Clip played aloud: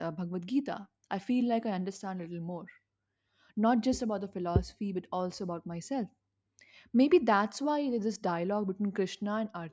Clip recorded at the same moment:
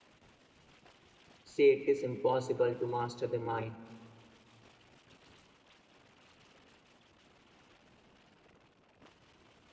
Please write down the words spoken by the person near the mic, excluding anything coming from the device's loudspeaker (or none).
say it is impossible to master the mind.